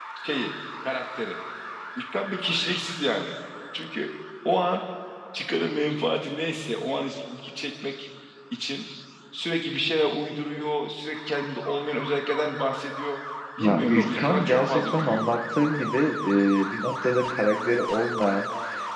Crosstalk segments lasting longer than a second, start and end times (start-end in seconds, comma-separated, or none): 13.6-15.3